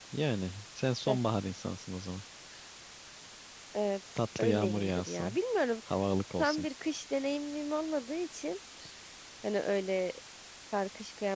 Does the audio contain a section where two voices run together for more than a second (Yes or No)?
Yes